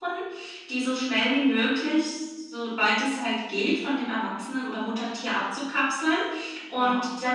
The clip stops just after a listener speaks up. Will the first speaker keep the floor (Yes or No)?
Yes